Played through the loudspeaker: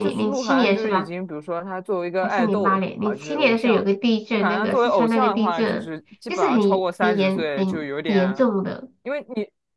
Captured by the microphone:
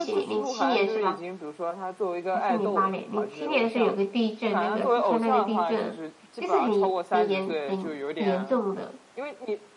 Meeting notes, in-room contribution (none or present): none